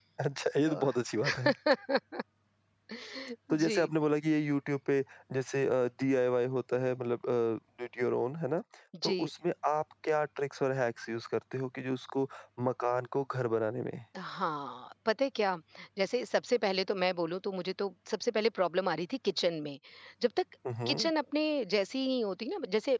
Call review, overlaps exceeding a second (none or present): none